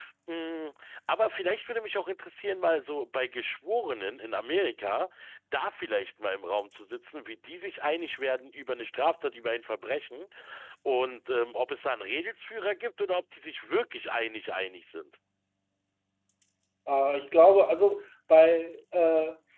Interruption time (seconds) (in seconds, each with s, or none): none